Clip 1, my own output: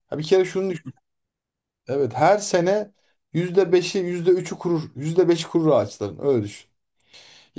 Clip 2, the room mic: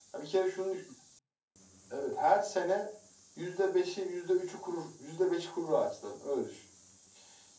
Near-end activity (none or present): none